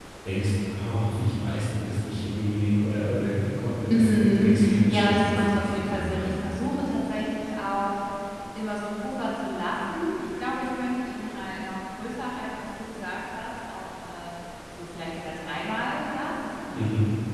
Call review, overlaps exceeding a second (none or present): present